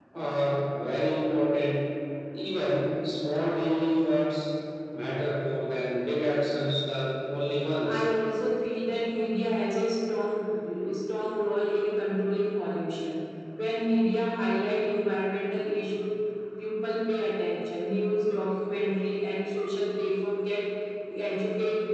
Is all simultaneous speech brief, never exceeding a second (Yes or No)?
Yes